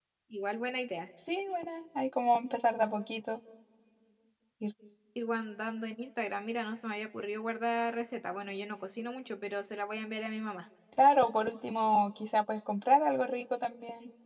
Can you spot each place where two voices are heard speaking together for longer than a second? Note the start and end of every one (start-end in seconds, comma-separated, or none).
none